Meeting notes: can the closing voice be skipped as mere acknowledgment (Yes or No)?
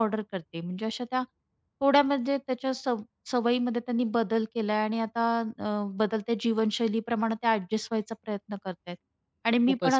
Yes